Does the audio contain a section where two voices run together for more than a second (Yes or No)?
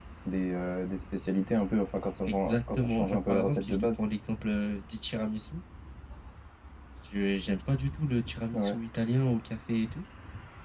Yes